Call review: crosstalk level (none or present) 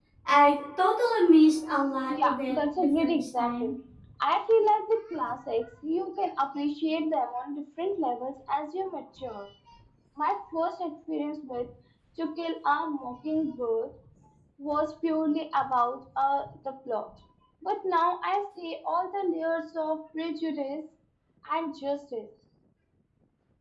present